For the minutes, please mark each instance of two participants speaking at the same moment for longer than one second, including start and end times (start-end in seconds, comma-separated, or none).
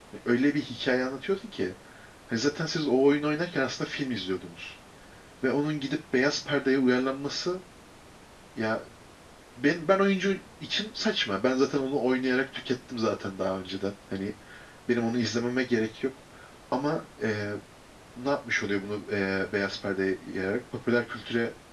none